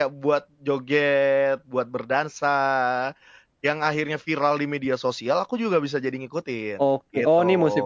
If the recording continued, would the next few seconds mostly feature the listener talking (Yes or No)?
Yes